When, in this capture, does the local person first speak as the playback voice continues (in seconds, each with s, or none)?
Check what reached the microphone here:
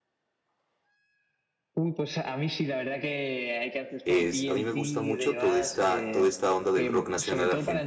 4.0 s